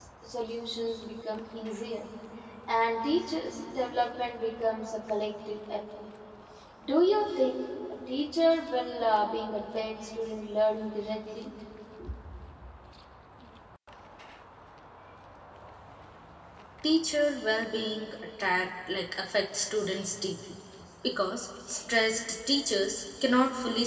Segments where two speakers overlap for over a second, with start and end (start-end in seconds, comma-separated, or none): none